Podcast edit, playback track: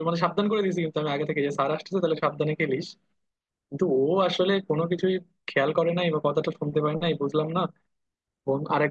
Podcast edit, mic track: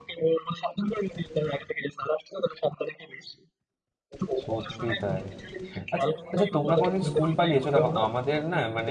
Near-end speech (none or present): present